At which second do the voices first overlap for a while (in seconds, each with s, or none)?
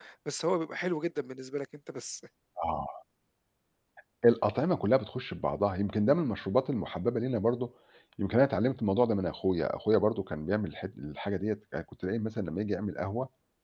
none